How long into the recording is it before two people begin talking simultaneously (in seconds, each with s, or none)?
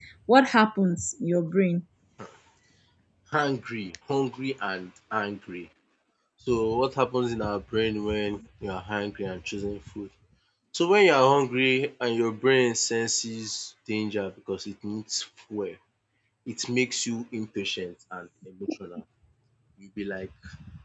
none